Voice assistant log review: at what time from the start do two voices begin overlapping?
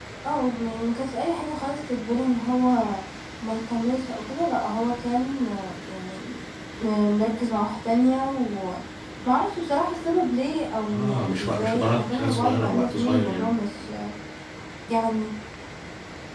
10.8 s

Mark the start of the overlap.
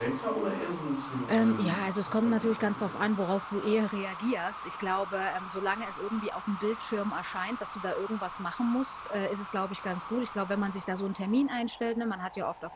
1.3 s

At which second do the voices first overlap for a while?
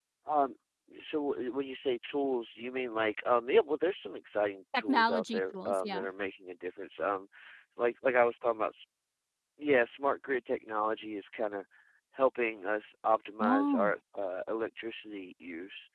4.7 s

